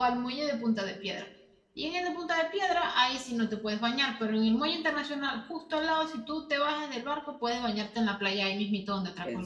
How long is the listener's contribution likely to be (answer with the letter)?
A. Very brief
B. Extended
B